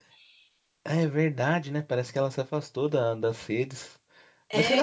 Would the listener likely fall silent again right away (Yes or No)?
No